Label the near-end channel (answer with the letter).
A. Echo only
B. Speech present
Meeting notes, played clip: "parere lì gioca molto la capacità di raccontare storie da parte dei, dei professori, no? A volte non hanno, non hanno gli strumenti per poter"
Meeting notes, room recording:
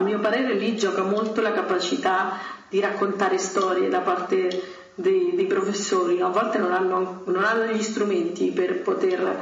A